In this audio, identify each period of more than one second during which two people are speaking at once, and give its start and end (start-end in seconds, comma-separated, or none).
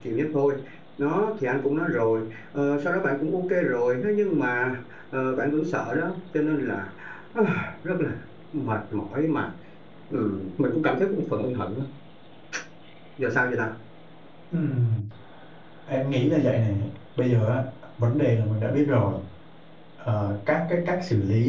none